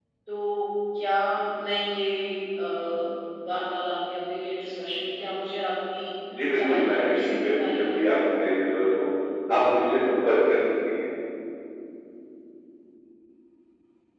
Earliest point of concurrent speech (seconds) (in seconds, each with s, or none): 6.6 s